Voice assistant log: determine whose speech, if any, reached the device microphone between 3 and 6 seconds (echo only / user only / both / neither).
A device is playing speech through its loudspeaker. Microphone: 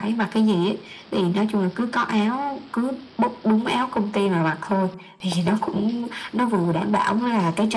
echo only